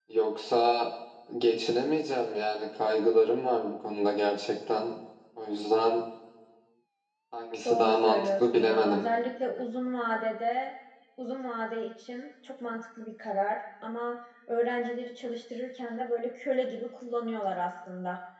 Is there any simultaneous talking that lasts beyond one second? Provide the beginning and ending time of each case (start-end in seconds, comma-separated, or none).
7.7-9.1